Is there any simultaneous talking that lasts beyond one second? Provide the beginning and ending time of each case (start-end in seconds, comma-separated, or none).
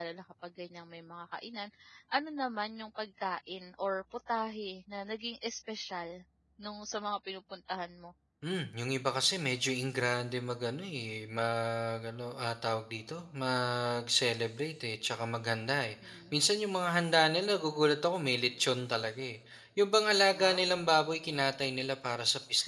none